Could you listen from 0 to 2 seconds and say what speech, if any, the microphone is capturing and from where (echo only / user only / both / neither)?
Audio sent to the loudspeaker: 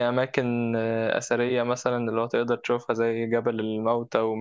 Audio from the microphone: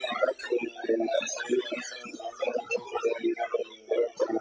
echo only